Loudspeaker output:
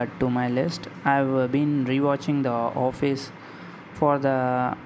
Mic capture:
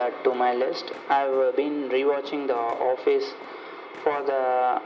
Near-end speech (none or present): none